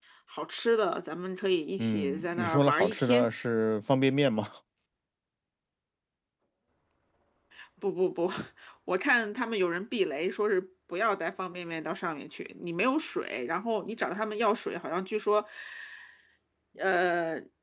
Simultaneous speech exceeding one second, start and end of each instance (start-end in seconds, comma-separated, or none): 1.8-3.3